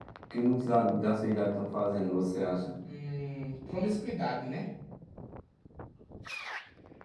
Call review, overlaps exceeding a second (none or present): none